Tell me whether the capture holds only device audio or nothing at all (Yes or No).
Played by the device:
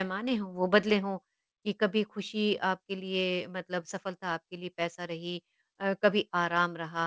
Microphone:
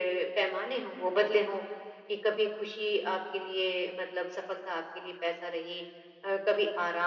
Yes